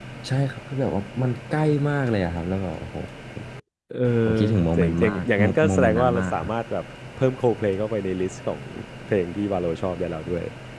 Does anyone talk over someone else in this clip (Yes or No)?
Yes